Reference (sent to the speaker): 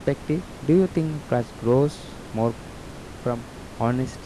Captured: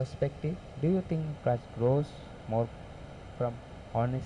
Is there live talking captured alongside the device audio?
No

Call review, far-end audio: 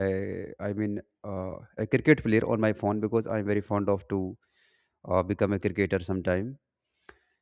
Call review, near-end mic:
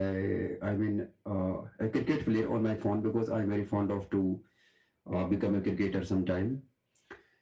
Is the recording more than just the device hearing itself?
No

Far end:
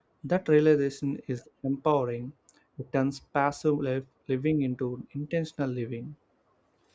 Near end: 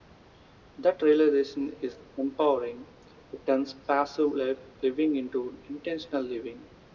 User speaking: No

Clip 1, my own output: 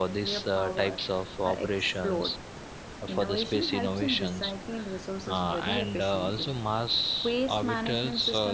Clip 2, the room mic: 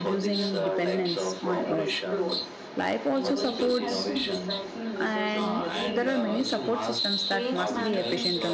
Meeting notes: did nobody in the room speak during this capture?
No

